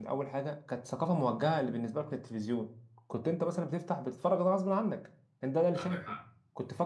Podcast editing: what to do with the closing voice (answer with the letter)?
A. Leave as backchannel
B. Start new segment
A